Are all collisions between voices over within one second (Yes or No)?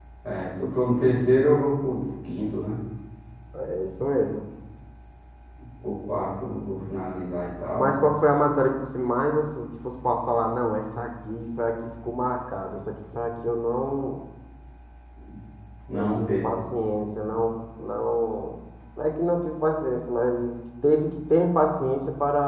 Yes